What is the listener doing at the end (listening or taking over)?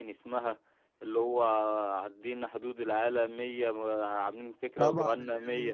taking over